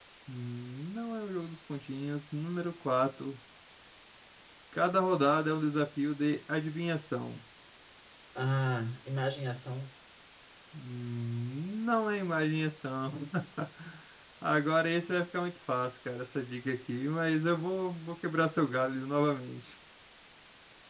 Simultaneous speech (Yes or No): No